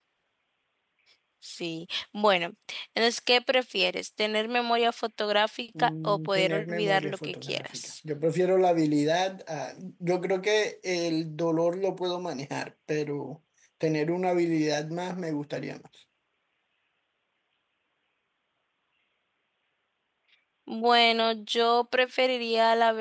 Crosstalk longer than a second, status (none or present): present